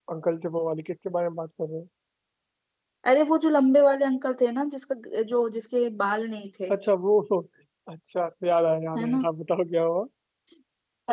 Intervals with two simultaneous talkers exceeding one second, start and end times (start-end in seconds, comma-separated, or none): none